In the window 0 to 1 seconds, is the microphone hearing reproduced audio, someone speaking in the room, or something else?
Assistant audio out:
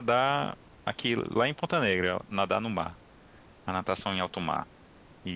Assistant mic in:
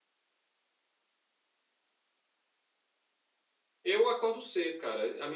neither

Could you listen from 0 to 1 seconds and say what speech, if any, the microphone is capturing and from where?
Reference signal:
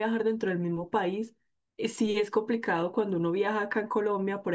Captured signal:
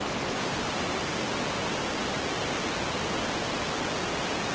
neither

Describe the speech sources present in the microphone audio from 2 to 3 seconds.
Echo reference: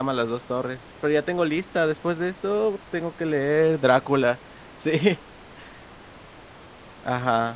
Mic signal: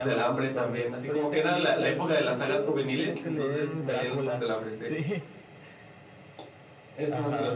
both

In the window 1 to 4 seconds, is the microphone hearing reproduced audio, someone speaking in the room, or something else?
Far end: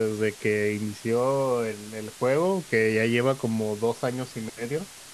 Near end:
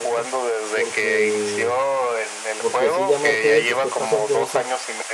both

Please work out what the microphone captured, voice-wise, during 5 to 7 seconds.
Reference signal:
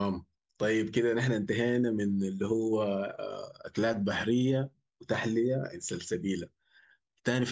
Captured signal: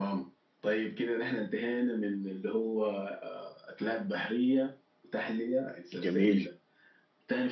both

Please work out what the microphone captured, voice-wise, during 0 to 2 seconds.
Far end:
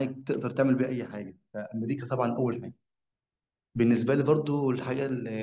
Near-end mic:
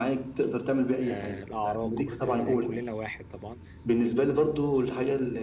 both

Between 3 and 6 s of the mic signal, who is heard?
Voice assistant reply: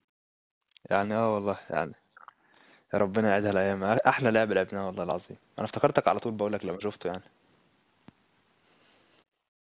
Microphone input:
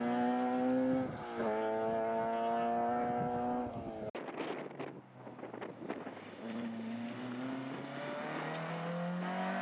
neither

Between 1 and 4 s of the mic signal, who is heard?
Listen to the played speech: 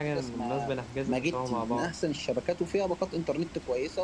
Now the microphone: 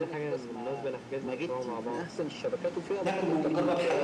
both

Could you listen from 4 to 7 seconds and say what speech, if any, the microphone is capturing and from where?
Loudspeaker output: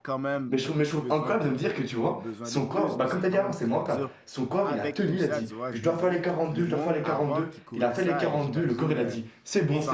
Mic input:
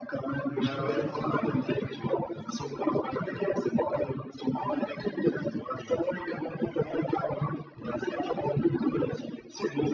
echo only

